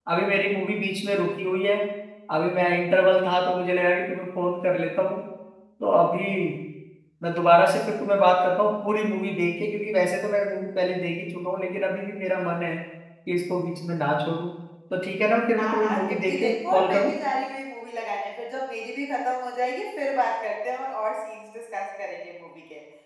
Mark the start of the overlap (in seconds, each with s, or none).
15.6 s